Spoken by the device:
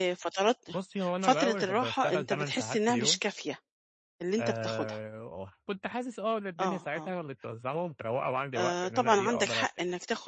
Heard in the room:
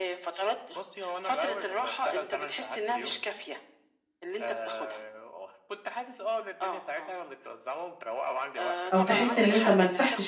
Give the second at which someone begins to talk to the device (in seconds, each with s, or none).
8.9 s